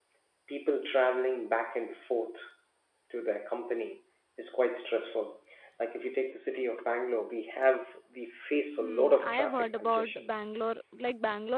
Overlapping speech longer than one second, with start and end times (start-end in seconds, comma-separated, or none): 8.8-10.3